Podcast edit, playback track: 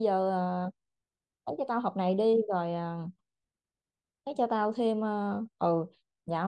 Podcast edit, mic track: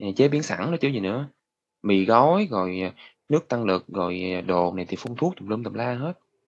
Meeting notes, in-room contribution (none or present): present